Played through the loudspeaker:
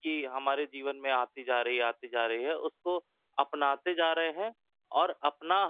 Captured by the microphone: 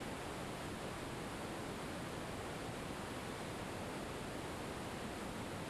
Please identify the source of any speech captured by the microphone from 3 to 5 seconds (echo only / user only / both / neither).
neither